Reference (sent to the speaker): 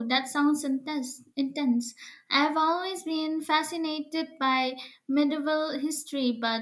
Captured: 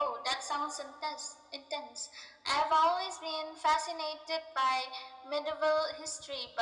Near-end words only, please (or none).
none